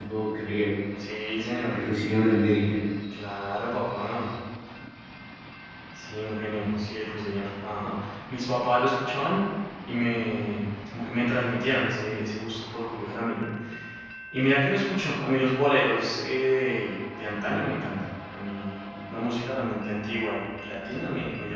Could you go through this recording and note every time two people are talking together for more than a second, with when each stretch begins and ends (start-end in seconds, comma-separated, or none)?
none